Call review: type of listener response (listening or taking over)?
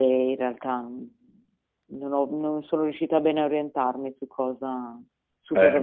taking over